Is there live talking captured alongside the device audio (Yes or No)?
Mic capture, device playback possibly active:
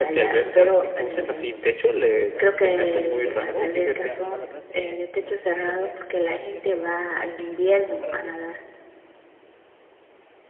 Yes